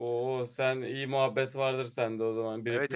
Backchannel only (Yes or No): No